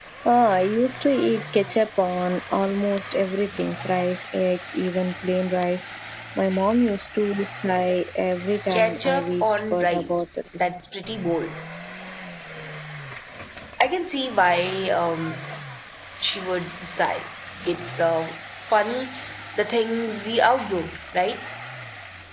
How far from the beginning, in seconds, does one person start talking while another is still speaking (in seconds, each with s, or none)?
8.7 s